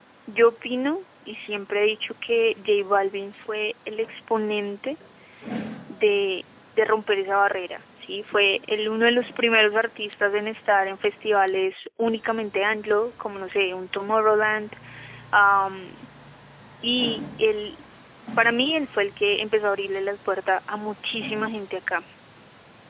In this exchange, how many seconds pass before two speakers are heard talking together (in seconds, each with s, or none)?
none